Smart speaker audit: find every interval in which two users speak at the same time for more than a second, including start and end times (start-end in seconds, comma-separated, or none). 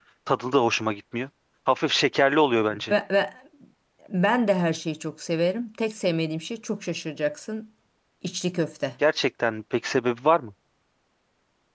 none